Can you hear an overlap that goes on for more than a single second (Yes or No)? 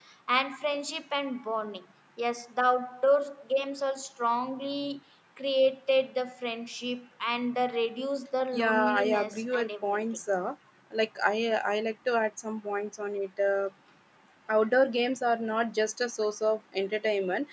Yes